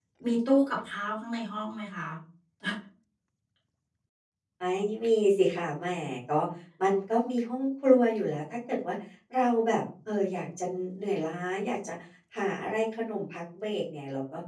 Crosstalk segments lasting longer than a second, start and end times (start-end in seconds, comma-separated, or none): none